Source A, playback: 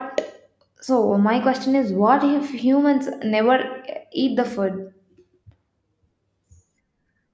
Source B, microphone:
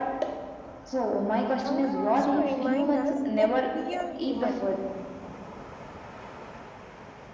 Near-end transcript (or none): Hunger also reminds us that we are human.